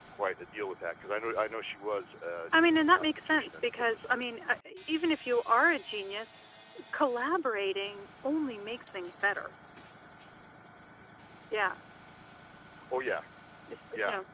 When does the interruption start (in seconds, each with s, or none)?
2.7 s